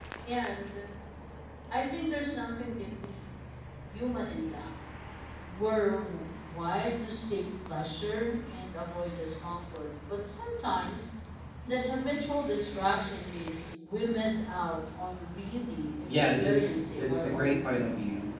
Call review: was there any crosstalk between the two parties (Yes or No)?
Yes